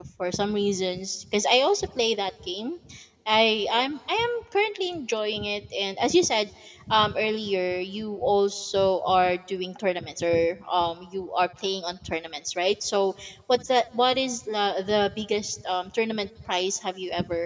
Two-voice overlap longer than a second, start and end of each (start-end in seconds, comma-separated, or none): none